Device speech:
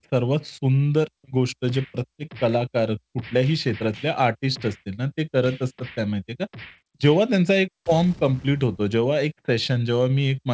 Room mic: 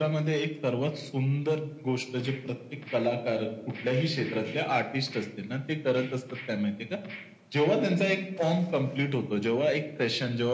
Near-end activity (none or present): none